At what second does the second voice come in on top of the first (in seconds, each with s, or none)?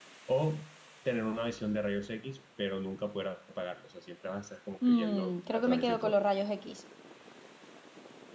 4.8 s